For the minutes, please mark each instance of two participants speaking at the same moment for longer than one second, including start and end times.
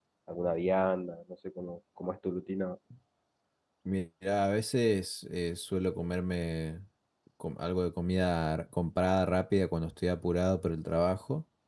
none

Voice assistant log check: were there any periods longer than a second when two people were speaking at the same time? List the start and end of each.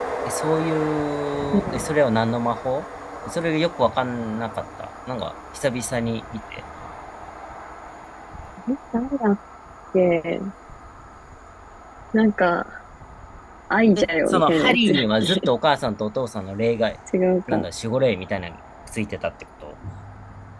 14.0-15.4

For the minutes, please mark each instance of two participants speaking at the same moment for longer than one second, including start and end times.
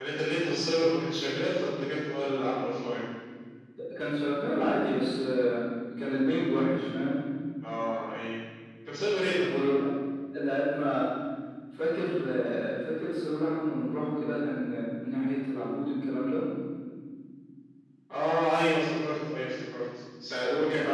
none

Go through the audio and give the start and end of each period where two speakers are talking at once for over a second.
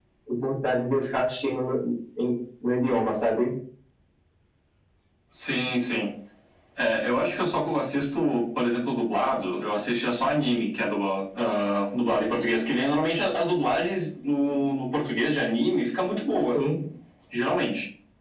none

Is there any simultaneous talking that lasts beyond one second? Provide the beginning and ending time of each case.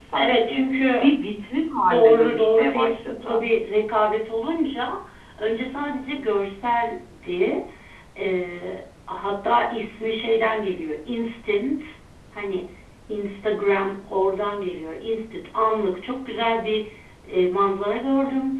1.9-3.4

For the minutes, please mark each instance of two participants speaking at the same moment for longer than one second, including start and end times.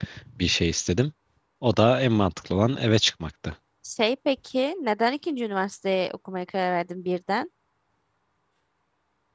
none

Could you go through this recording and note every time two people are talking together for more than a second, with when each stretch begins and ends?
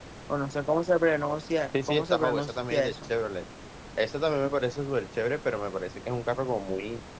1.9-3.1

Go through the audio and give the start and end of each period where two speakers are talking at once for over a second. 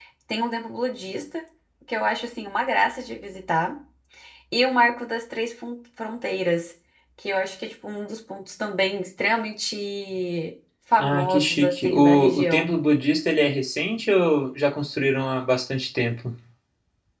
11.0-12.7

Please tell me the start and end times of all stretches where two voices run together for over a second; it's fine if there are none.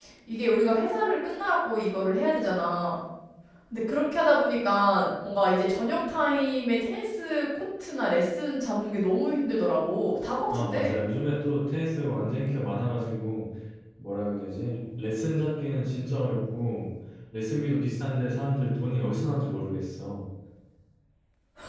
none

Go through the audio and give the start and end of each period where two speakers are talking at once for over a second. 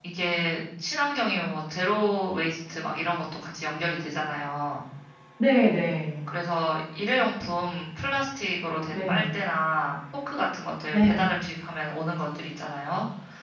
none

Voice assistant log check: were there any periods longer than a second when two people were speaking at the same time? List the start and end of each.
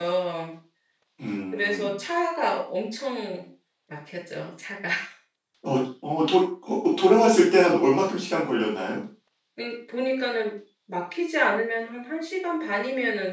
none

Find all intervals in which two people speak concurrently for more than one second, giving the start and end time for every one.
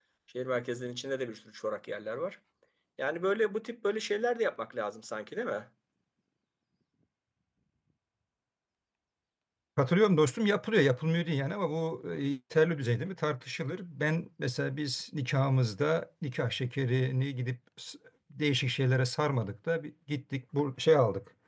none

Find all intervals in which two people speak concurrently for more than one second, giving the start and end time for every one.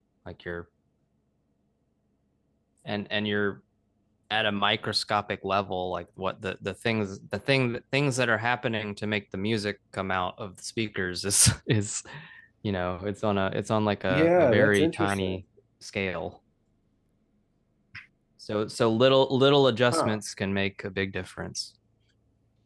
14.1-15.4

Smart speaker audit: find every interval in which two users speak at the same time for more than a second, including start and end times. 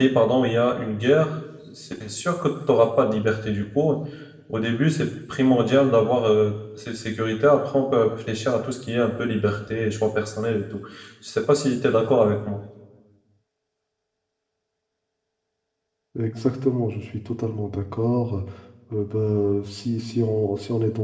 none

